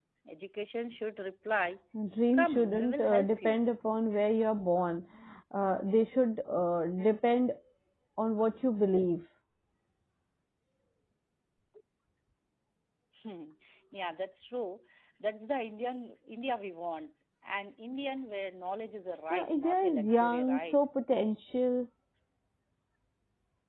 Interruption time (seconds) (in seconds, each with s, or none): 2.3 s